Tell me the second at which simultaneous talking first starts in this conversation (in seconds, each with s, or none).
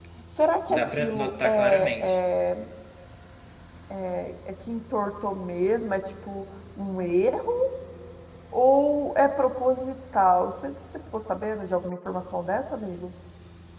0.7 s